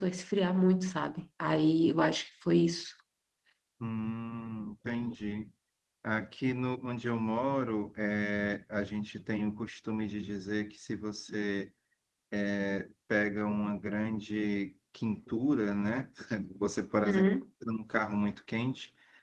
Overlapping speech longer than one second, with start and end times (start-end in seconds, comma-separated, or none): none